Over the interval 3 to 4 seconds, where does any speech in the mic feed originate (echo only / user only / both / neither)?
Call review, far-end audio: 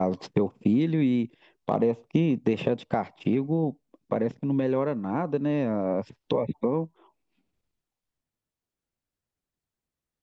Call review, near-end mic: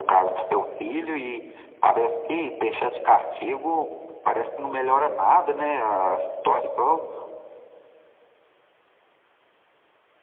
echo only